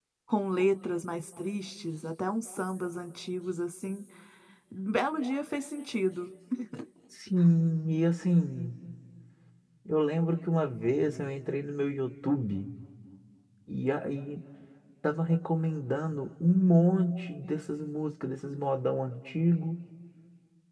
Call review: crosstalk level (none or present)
none